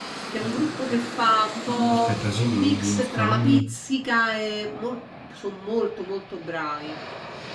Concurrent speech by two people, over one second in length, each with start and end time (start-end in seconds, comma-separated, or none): 1.9-3.7